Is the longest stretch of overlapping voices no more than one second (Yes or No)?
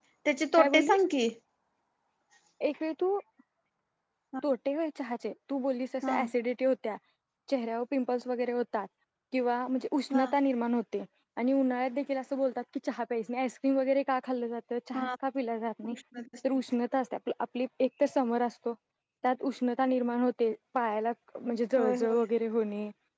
Yes